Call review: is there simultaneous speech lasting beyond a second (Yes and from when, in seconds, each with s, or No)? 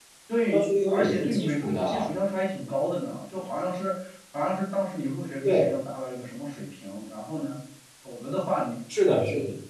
Yes, from 0.5 s